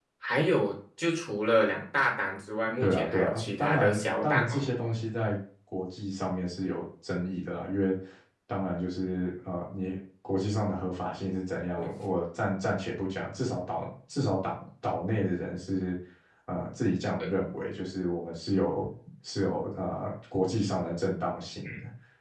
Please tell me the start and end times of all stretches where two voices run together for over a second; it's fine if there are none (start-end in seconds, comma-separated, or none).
2.8-4.7